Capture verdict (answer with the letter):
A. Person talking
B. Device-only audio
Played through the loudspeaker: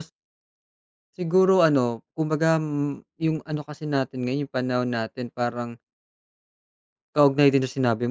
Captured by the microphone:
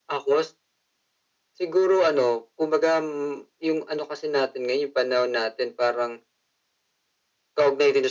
B